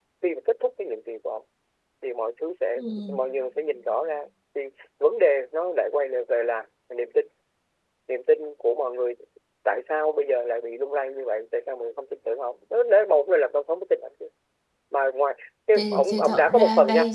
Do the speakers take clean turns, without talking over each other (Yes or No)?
No